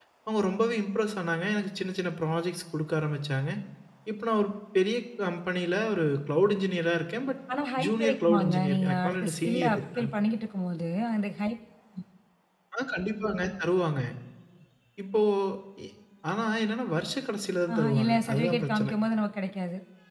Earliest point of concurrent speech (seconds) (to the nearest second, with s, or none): 8 s